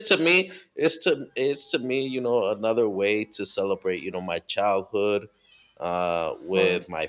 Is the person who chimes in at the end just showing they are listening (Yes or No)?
Yes